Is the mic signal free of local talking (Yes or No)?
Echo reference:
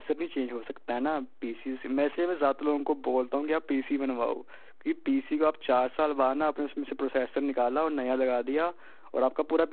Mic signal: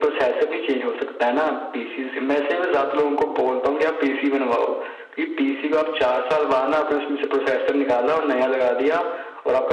Yes